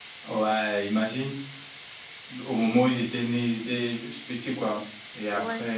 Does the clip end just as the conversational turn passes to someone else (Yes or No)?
No